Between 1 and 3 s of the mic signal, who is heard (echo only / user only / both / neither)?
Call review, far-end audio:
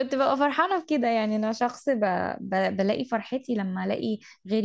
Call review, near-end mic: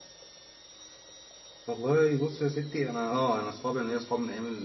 user only